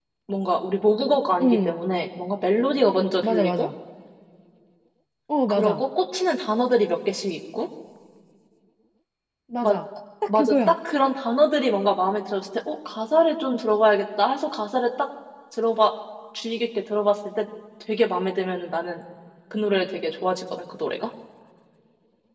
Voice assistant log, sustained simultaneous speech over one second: none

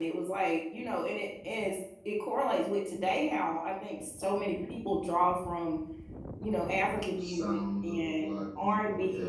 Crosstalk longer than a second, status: present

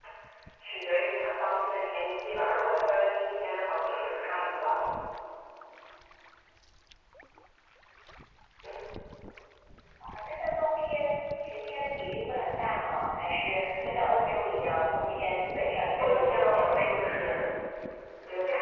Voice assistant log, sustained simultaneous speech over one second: present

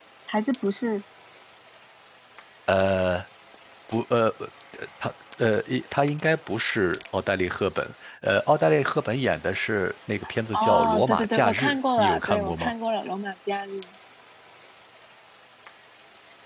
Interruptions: present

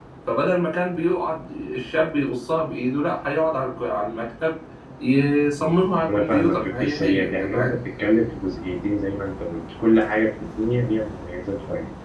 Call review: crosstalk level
present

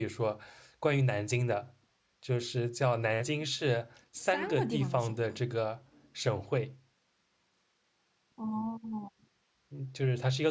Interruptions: present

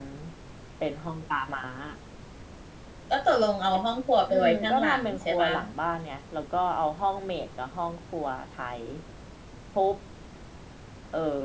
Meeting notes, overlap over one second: present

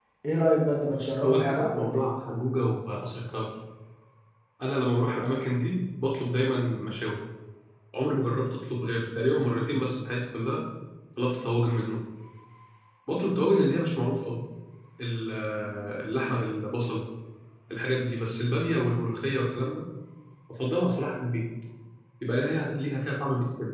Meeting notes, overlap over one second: present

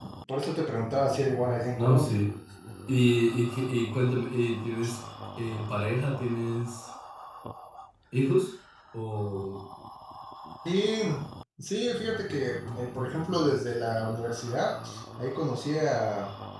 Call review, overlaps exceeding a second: none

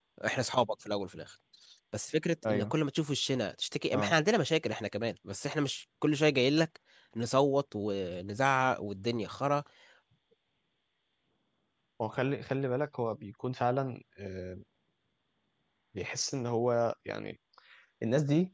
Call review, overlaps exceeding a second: none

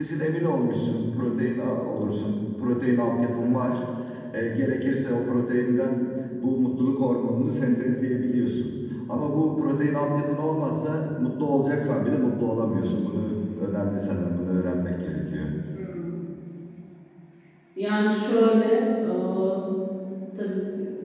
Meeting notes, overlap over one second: none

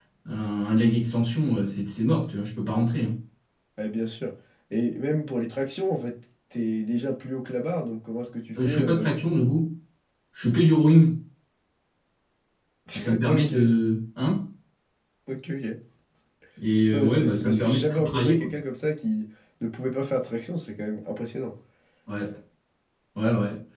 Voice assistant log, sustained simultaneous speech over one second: present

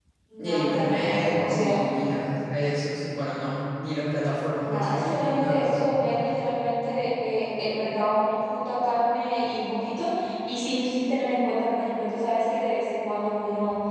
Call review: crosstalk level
present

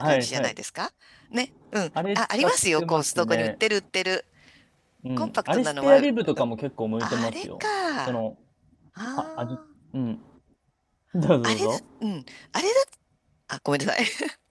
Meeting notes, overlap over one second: present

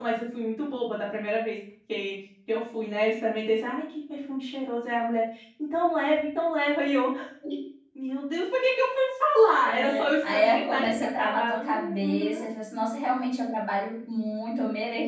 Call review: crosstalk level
present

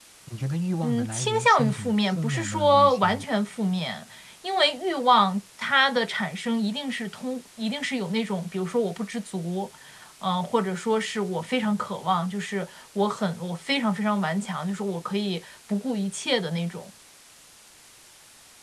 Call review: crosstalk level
present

